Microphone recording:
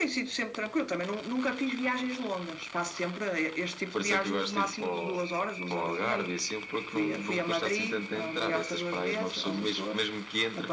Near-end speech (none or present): none